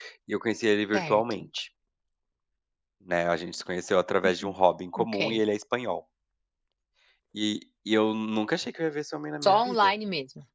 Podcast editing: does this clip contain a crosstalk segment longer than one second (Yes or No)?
No